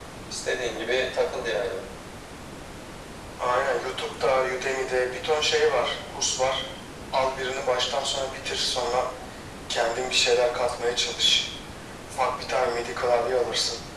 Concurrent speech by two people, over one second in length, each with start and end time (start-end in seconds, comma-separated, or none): none